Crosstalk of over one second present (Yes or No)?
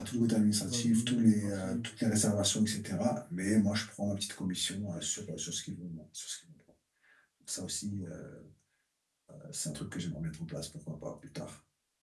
Yes